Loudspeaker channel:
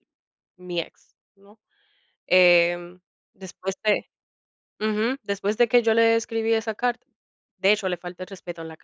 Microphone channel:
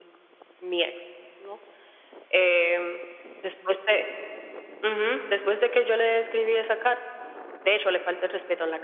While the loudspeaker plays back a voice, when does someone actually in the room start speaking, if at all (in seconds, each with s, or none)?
none